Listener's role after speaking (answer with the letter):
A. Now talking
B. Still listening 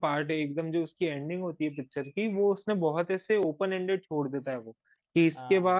B